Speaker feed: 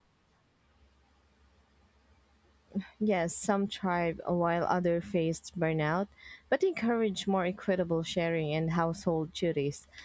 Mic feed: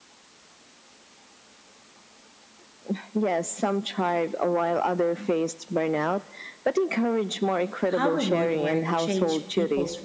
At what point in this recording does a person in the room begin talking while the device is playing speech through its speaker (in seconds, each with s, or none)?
8.0 s